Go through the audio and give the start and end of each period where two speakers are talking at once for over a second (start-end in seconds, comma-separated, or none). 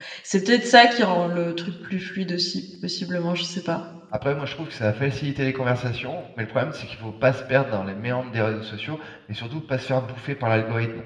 none